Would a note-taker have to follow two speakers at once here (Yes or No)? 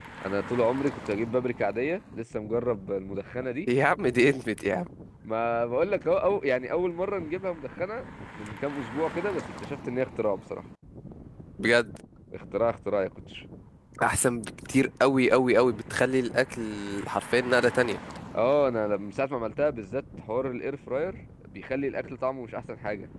No